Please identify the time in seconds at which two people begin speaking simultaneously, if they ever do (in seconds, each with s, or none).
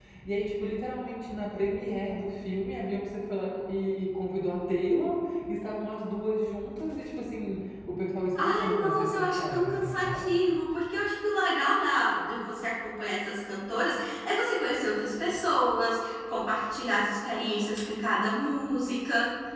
8.4 s